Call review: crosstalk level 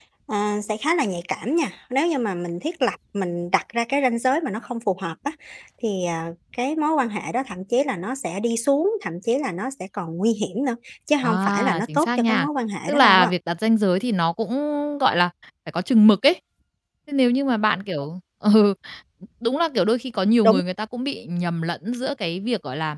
present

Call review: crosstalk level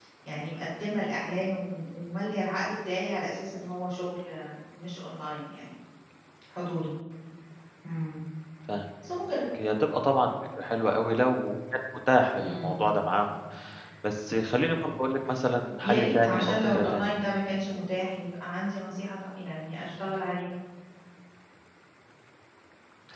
present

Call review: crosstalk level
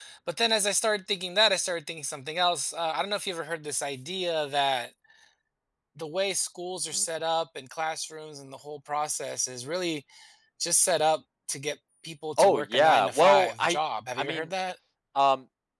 present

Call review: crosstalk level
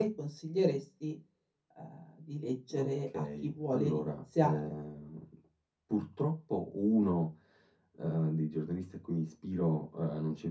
present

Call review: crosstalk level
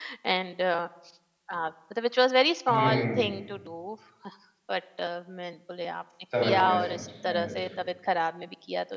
present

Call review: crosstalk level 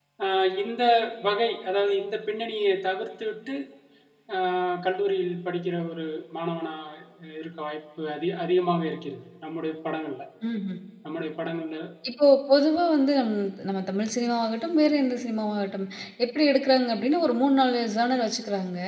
none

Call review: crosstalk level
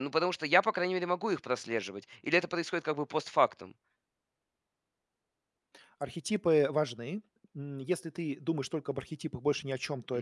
none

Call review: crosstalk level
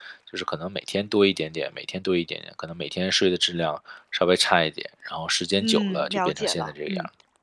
present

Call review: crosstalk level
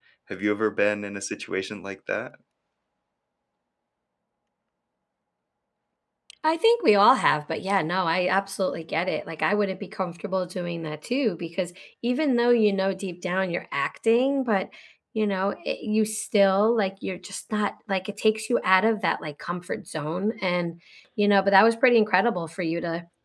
none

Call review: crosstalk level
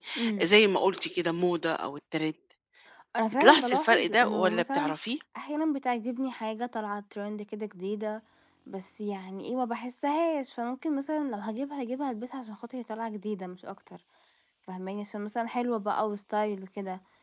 present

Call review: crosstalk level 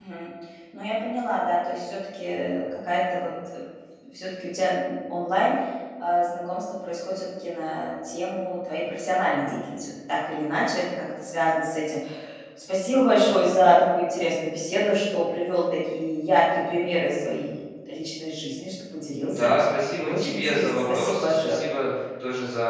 present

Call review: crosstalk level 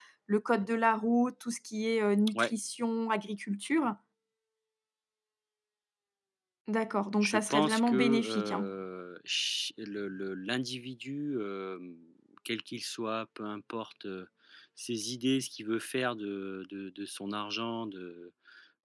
present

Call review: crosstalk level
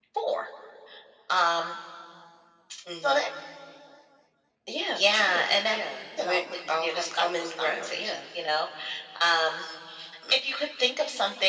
present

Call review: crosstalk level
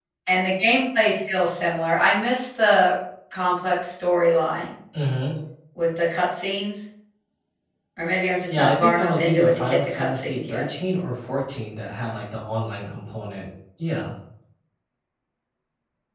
present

